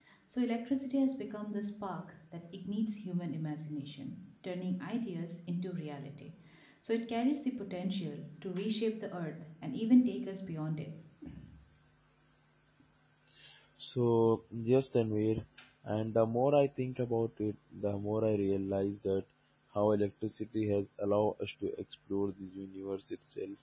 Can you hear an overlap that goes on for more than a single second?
No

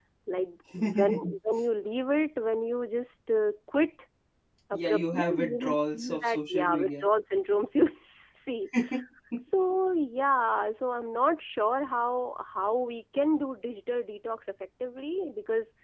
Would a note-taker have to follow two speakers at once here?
Yes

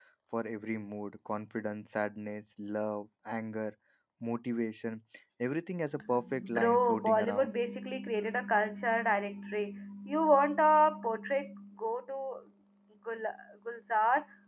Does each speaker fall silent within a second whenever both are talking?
No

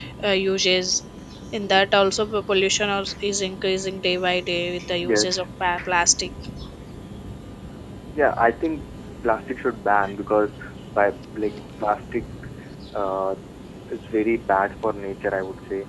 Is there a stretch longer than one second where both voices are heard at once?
No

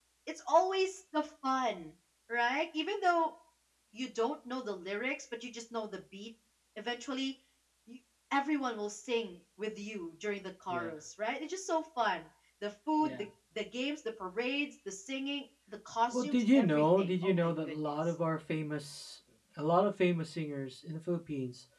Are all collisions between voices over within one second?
No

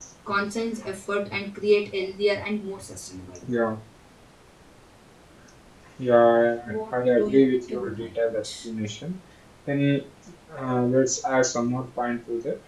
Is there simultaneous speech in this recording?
Yes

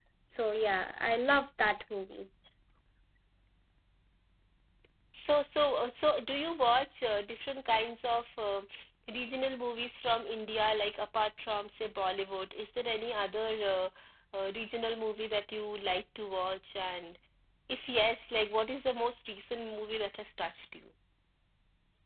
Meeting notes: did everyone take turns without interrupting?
Yes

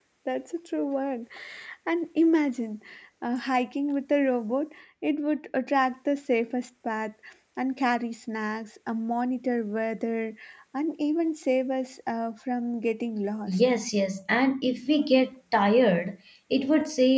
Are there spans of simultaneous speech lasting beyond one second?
No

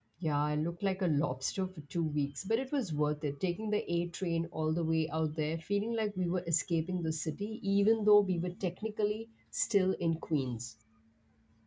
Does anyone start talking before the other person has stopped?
No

